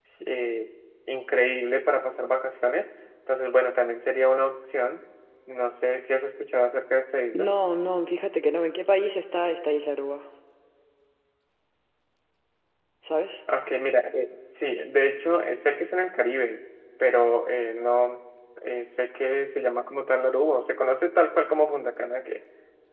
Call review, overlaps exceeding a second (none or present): none